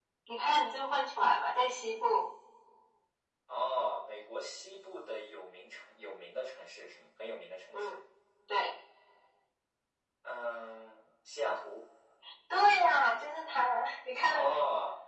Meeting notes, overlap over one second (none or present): none